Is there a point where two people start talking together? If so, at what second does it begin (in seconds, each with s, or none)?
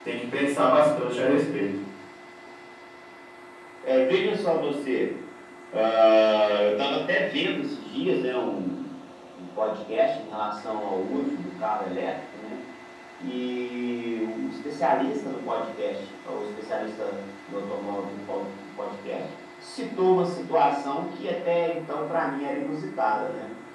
none